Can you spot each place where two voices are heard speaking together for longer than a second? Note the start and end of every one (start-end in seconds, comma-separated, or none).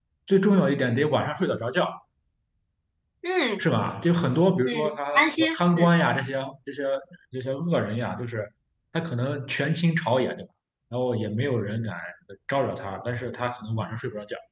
4.6-5.9